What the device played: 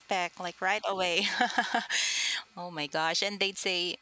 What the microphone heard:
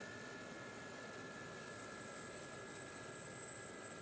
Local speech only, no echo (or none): none